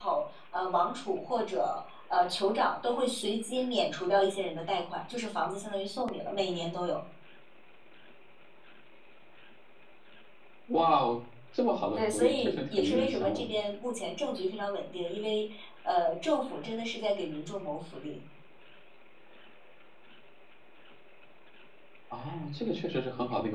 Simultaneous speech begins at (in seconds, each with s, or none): 12.0 s